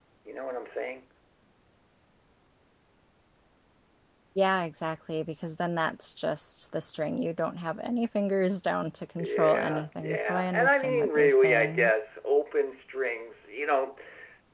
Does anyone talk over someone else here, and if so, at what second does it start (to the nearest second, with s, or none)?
9 s